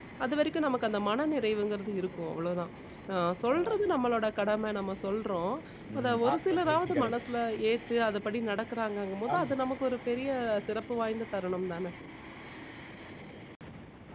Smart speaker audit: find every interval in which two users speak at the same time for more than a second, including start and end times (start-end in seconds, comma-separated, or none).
6.0-7.2